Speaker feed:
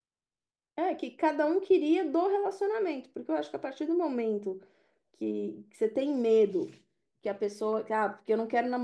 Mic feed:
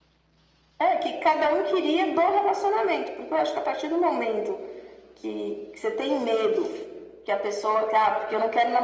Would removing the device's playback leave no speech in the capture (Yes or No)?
Yes